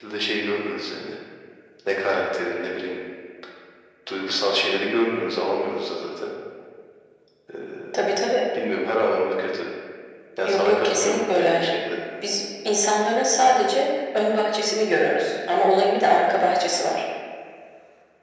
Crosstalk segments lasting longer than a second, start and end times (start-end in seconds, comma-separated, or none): 10.4-11.7